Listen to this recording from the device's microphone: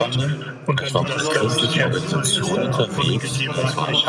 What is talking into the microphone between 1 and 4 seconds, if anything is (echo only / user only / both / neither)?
both